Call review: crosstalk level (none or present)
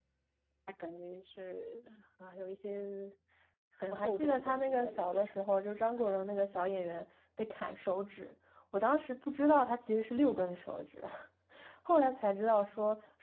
present